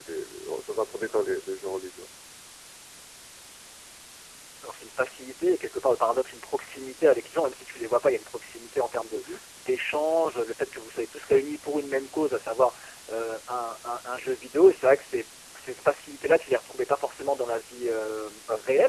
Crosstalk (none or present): none